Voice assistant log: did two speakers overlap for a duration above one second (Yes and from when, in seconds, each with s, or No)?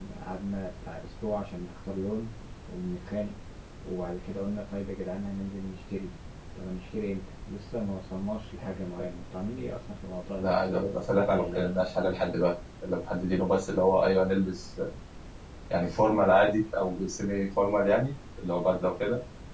Yes, from 10.4 s